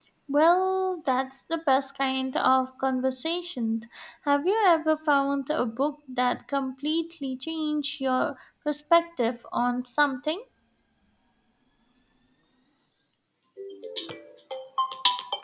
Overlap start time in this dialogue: none

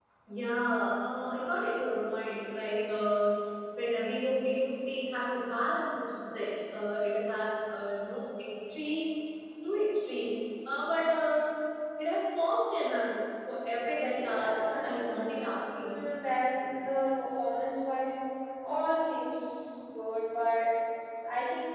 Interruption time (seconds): 13.8 s

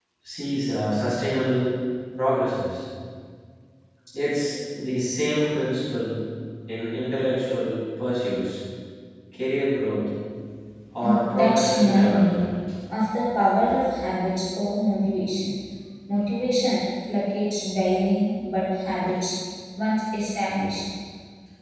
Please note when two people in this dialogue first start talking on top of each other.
11.0 s

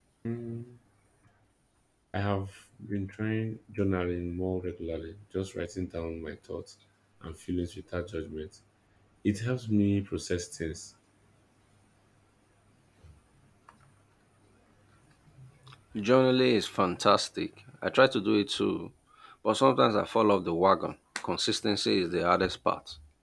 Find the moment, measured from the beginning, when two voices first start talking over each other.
none

